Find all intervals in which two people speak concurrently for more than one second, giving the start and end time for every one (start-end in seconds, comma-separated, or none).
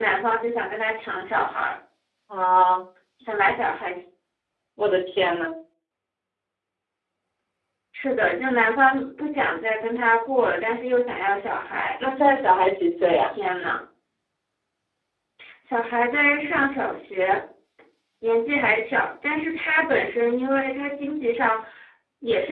none